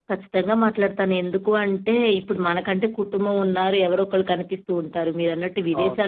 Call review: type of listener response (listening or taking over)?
listening